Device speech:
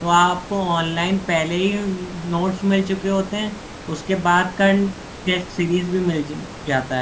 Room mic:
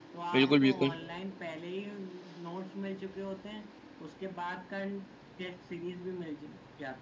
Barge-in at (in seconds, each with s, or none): 0.3 s